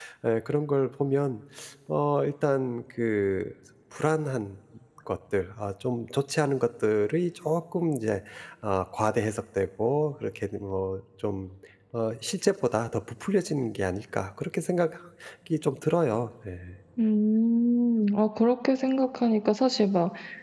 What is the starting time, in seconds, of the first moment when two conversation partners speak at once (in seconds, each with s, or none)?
none